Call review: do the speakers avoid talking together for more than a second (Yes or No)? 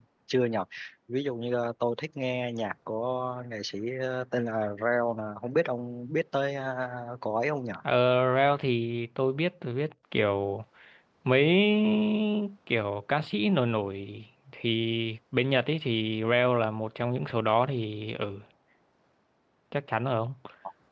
Yes